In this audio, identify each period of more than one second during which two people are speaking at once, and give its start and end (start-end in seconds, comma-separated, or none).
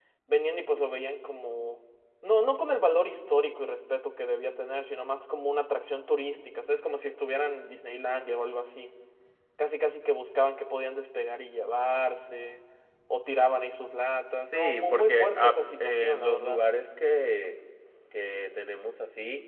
14.4-16.6